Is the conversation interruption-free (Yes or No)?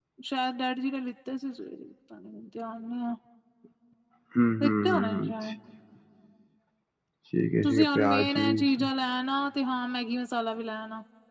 No